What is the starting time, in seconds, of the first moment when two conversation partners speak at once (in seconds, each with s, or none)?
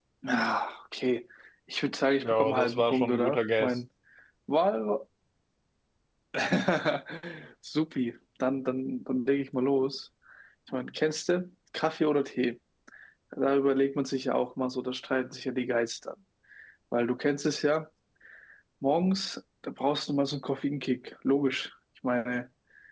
2.2 s